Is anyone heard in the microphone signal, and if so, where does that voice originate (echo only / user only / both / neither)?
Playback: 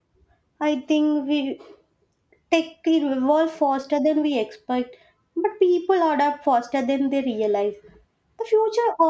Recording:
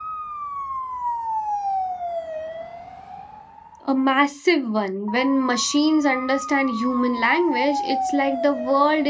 user only